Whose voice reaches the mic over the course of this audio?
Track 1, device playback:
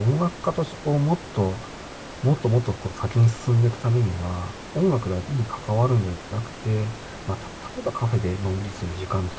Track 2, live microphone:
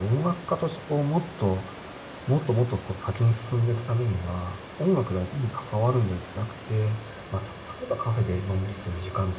echo only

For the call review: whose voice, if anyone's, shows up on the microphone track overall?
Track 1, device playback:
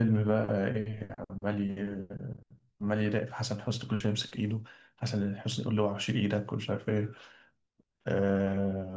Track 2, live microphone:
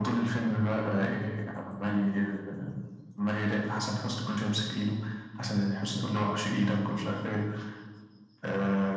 echo only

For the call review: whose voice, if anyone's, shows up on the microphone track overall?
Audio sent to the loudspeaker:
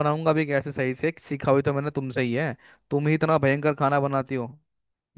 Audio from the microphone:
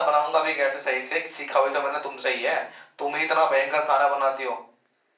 echo only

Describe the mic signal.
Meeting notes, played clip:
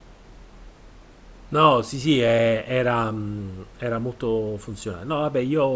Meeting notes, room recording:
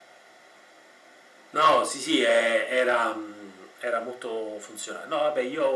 echo only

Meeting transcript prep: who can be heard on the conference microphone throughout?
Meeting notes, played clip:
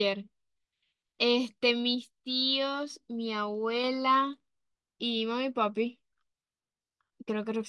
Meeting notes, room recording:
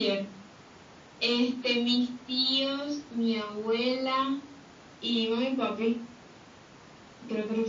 echo only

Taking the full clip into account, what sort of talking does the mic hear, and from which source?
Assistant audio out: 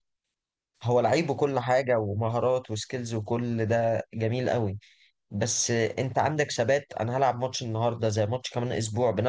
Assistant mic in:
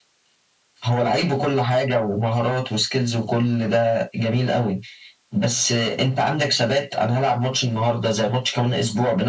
echo only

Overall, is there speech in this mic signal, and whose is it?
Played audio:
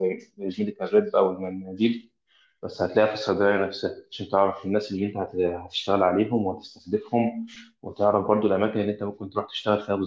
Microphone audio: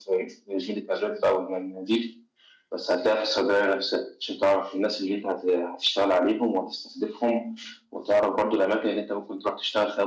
echo only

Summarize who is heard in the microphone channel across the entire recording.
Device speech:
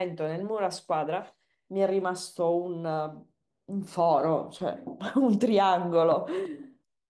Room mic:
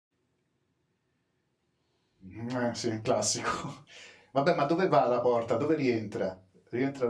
user only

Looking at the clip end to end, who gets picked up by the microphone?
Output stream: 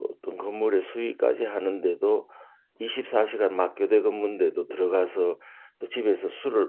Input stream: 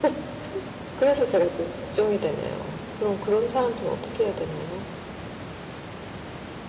user only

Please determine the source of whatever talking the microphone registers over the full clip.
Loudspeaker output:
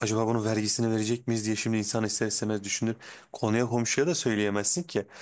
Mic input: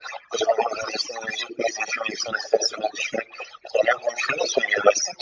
echo only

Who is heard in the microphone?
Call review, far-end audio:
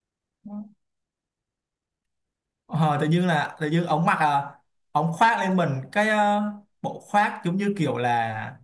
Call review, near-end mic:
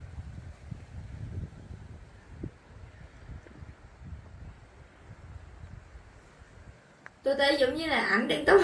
user only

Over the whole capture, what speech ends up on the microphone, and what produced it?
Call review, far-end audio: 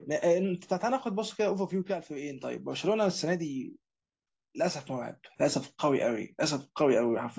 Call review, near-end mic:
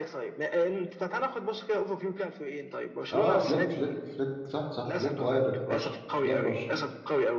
both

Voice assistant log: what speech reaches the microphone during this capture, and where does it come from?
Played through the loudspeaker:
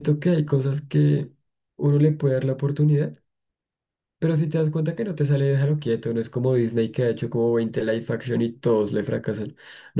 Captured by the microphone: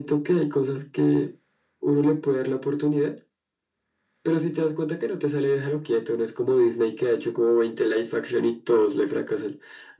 echo only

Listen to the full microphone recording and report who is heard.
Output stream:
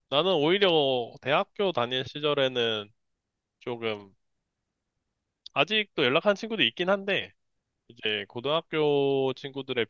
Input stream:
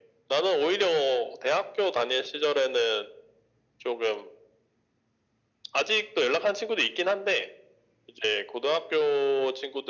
echo only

